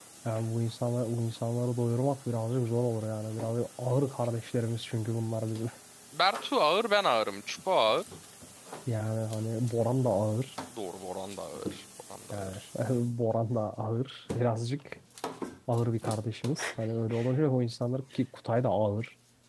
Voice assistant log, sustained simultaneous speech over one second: none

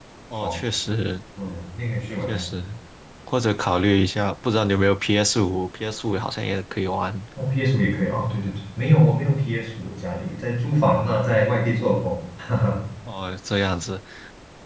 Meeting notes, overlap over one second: none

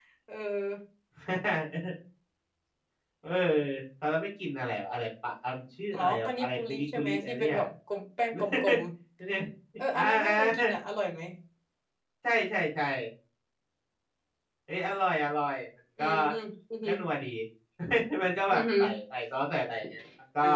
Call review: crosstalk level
present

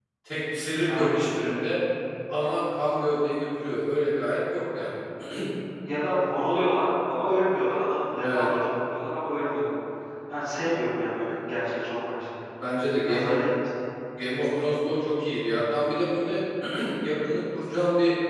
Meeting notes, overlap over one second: none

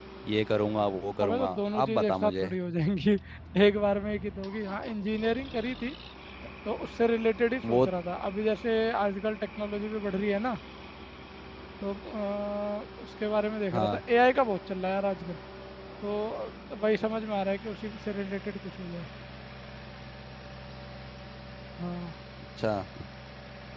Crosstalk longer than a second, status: present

